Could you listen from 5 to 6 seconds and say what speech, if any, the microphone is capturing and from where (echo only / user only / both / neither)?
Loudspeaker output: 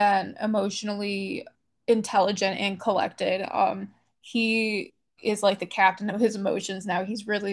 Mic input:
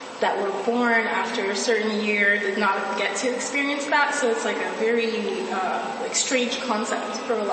user only